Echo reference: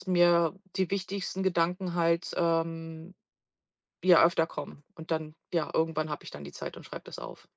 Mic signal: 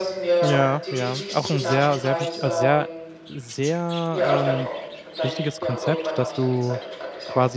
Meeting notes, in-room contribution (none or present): present